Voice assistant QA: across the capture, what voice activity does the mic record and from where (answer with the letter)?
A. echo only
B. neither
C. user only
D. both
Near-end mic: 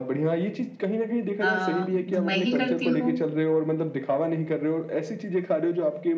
D